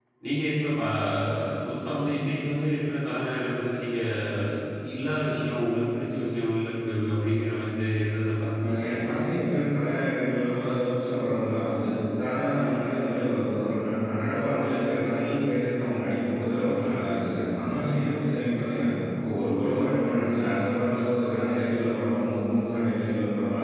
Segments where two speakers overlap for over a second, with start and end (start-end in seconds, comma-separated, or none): none